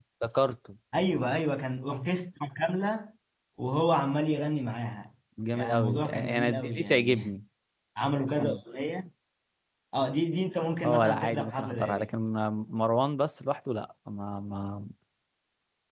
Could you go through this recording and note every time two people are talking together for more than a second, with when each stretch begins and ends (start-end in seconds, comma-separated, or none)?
5.5-7.2, 10.8-12.1